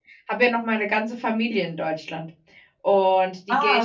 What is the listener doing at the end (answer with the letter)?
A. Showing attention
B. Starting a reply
A